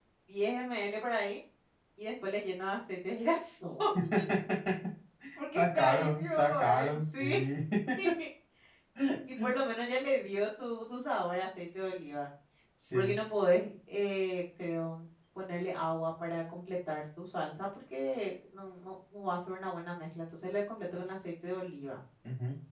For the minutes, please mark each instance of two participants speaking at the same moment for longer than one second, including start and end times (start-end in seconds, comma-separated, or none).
5.5-7.4